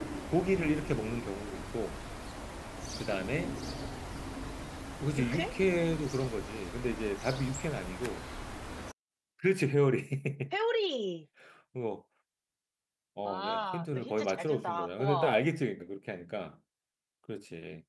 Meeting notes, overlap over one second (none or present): present